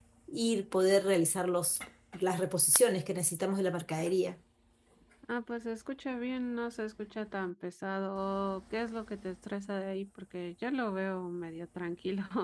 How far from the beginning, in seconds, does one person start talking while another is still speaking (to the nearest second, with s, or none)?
none